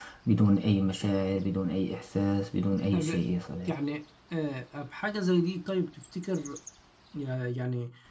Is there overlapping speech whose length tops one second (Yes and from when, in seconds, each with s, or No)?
No